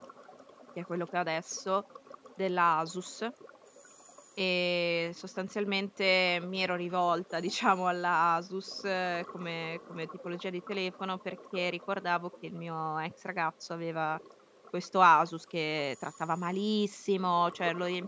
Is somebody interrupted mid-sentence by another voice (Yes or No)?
No